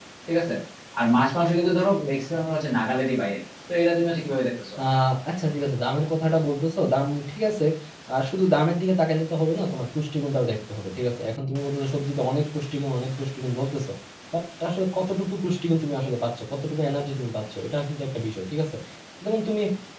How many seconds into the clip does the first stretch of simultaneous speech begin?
none

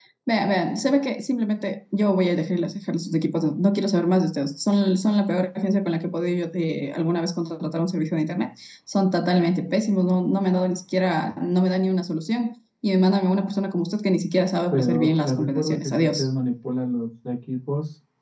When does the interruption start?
15 s

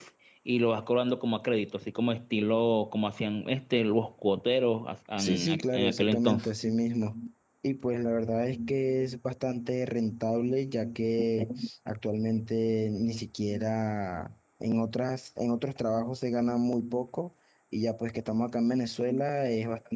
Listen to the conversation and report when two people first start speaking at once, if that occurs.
5 s

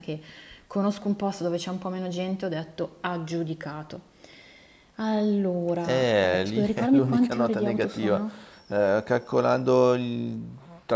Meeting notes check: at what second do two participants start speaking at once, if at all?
6 s

